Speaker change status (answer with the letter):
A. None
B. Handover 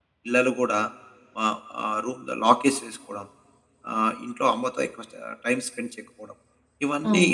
B